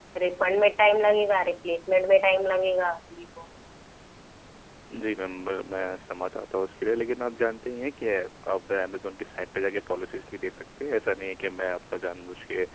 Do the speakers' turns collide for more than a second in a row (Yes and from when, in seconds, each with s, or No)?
No